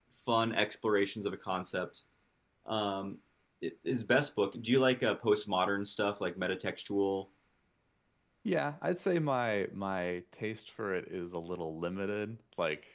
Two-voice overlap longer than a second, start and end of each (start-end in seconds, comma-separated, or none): none